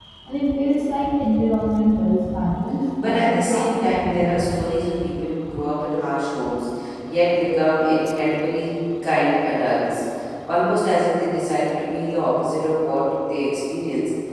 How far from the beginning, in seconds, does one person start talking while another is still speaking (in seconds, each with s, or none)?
3.0 s